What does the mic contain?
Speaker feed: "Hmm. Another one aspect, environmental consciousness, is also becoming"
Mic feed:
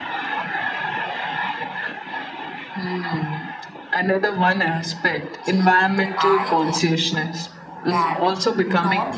both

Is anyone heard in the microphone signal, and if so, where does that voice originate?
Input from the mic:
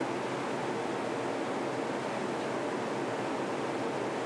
neither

